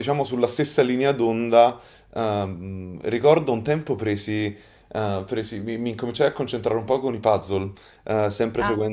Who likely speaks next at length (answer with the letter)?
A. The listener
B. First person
B